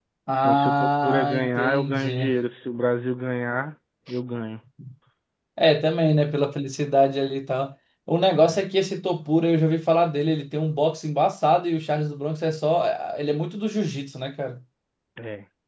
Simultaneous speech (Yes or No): Yes